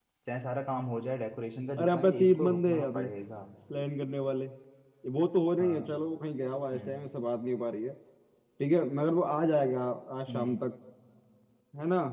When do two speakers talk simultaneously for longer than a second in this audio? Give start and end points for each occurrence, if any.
1.8-3.0

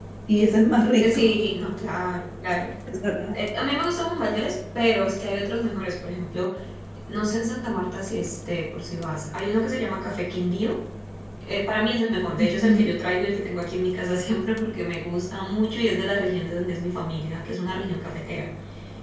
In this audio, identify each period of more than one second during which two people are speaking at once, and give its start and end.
none

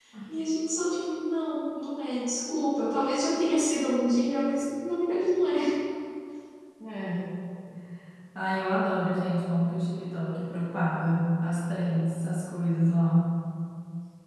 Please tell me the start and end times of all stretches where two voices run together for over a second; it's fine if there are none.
none

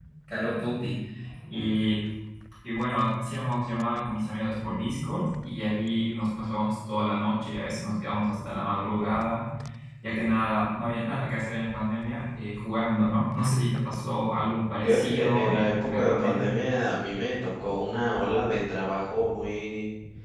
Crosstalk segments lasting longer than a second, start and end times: 14.8-16.5

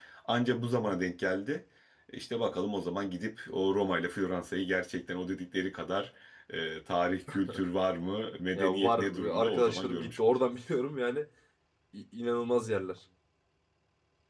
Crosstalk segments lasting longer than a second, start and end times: 8.5-10.4

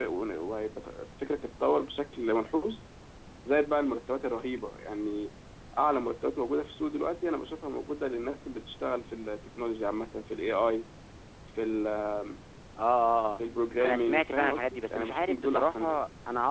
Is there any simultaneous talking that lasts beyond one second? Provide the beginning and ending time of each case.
13.8-16.0

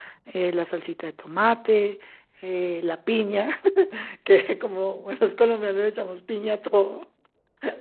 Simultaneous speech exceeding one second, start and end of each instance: none

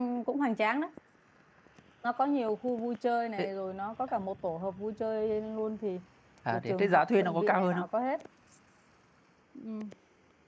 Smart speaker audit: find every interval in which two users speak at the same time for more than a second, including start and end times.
6.5-7.9

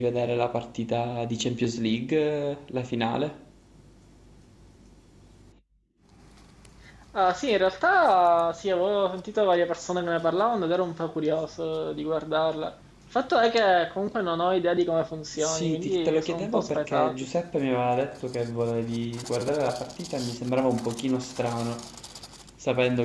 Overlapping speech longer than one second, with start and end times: 15.3-17.1

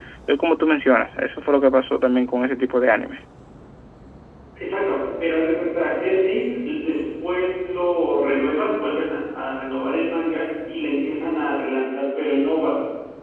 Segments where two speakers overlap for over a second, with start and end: none

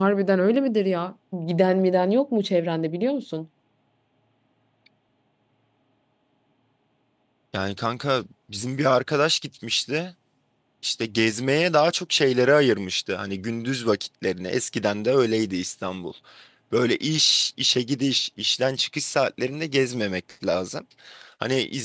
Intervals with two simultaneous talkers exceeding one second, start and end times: none

